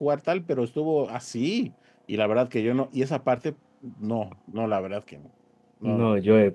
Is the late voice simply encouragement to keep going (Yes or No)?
No